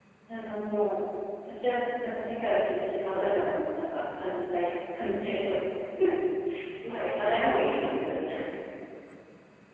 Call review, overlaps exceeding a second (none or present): present